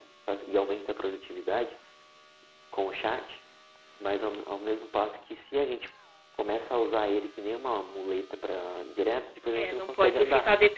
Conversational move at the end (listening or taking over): taking over